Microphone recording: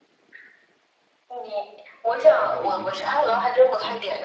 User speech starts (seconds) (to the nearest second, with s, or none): 2 s